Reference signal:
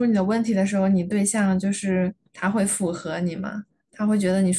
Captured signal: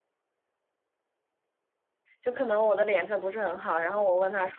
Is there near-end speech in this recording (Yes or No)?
Yes